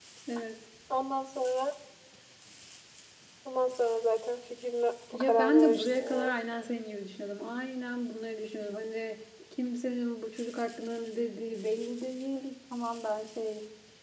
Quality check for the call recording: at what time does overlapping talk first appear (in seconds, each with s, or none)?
5.1 s